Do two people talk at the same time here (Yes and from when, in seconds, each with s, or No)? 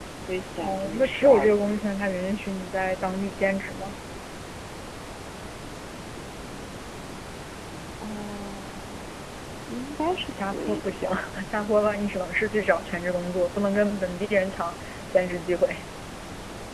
Yes, from 0.6 s